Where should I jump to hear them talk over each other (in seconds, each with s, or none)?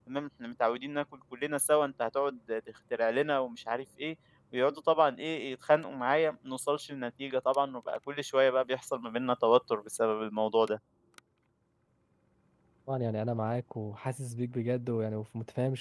none